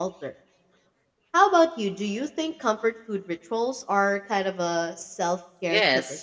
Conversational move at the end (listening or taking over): taking over